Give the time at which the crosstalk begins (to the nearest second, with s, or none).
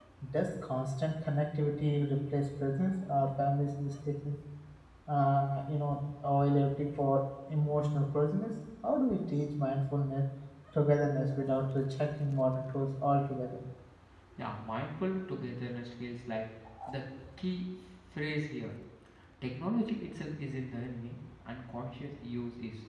none